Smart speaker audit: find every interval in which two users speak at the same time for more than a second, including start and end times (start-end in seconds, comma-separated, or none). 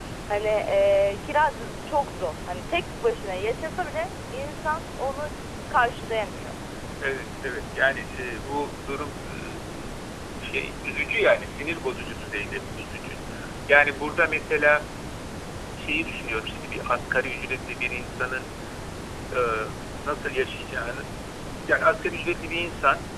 none